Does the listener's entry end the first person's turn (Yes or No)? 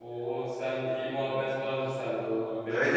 Yes